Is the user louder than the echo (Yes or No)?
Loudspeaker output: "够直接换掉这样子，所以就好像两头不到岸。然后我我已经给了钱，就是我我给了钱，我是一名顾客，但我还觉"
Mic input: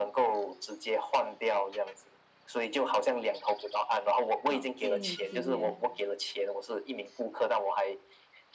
No